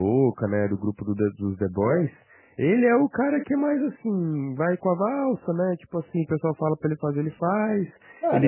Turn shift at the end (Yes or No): Yes